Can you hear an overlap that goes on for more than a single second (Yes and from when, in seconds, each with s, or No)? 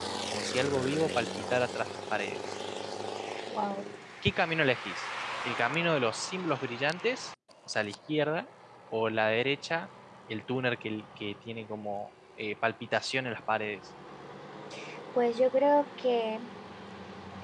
No